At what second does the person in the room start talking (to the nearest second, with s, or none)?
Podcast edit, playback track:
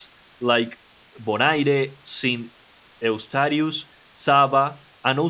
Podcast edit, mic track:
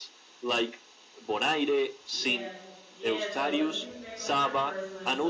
2 s